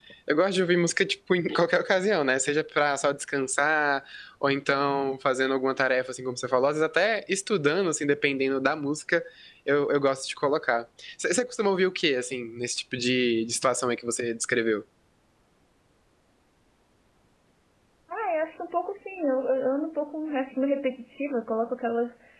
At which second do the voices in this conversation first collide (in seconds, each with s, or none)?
none